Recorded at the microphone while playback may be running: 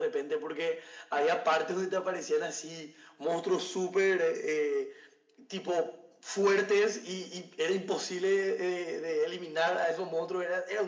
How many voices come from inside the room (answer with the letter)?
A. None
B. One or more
A